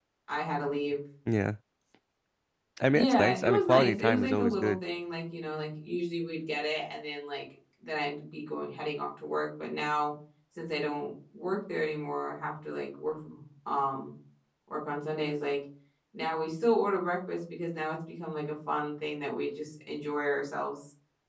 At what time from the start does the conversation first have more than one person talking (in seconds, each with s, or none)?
2.9 s